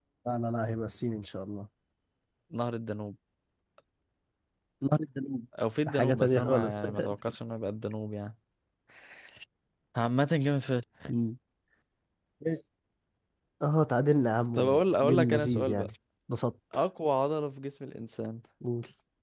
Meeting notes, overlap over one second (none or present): present